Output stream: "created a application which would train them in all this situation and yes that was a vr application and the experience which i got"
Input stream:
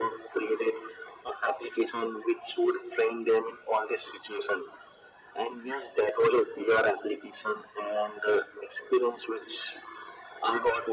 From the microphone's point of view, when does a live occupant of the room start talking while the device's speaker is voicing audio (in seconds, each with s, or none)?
none